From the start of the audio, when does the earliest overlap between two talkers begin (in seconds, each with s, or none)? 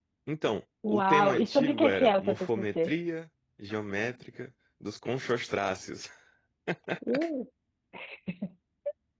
0.9 s